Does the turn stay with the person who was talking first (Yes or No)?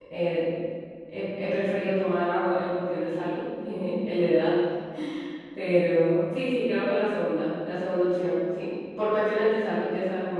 Yes